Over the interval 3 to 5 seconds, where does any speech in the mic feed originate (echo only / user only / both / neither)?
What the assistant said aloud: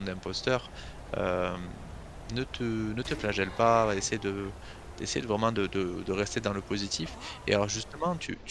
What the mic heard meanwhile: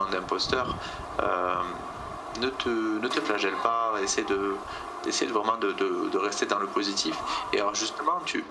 echo only